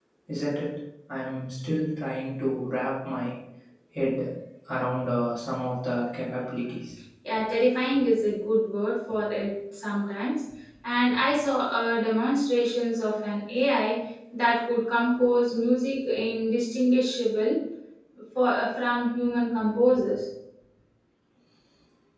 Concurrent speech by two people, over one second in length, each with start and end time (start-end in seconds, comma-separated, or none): none